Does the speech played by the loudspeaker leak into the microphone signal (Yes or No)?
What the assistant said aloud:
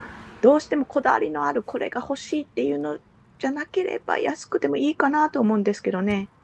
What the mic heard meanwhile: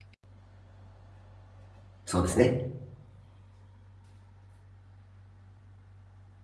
No